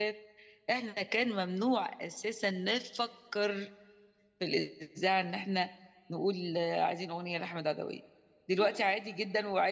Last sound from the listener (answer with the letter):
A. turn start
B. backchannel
B